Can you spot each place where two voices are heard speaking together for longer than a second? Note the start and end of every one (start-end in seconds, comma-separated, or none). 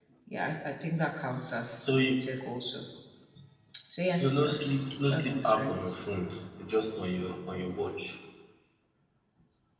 4.2-5.9